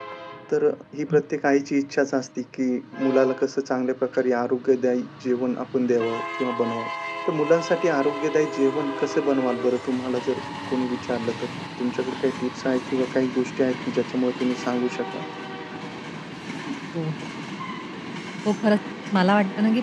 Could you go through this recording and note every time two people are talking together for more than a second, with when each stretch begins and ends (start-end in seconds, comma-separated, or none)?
none